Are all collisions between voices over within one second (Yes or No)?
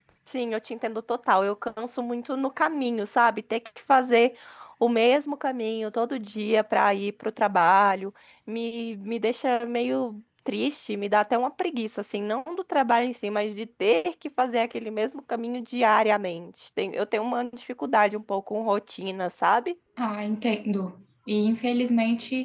Yes